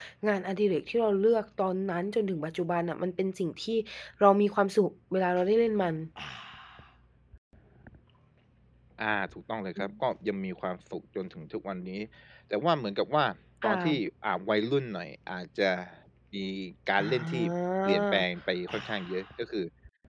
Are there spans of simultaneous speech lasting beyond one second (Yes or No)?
No